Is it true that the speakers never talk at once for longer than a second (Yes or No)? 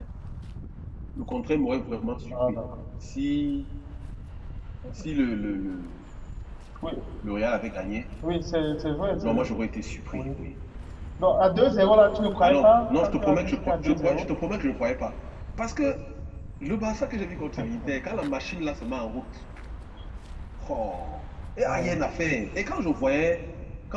No